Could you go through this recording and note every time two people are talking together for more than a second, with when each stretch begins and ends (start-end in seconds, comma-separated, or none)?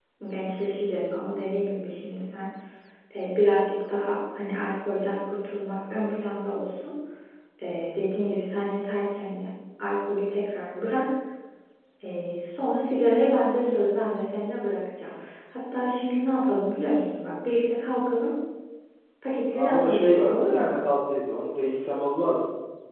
19.5-20.8